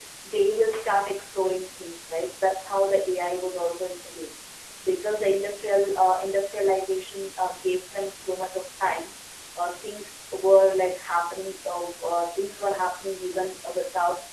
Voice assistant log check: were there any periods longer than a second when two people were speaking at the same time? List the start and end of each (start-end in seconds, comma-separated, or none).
none